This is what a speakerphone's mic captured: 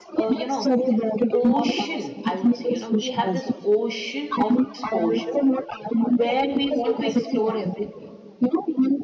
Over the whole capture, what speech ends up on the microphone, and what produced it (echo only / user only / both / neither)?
both